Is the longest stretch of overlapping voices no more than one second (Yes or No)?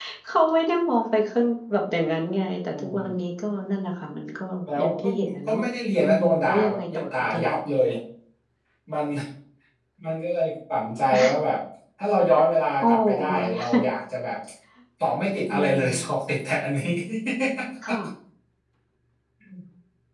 No